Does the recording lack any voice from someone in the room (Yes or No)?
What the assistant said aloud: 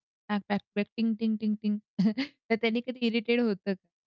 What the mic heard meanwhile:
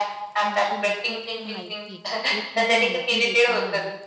No